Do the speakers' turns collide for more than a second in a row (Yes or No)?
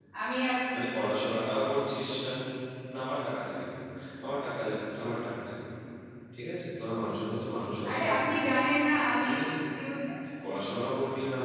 No